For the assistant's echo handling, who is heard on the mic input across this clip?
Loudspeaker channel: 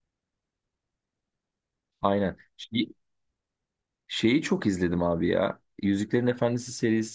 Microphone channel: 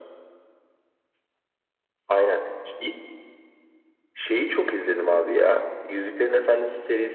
echo only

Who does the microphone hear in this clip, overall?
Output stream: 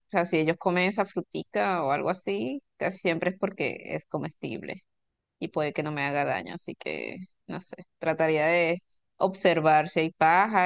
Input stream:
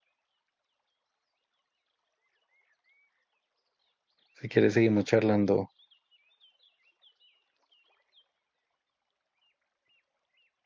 user only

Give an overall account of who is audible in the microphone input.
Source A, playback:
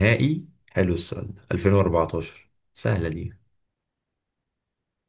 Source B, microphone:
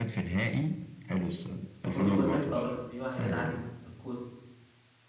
both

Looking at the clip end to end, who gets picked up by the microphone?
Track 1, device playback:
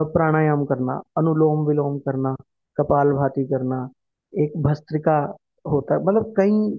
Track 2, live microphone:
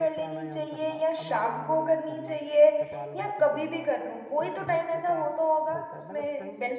both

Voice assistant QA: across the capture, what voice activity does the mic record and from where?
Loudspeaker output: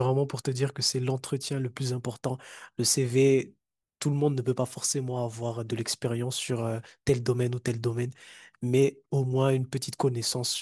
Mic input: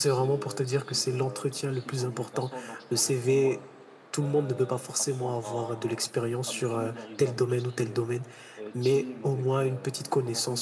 both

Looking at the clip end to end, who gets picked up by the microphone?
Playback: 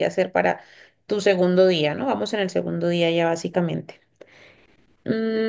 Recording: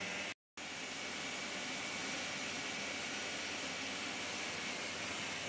neither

